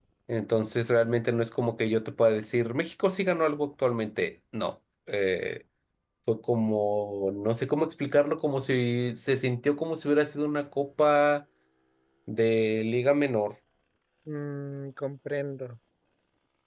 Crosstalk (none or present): none